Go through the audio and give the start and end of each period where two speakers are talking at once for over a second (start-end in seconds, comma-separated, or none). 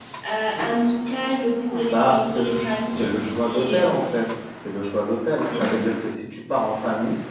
1.9-3.8